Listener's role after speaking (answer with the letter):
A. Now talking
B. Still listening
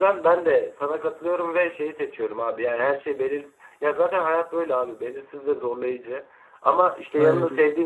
B